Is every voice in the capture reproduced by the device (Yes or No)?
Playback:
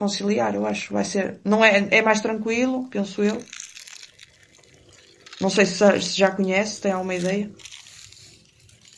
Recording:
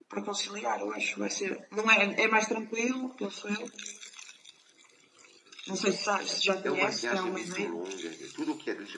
No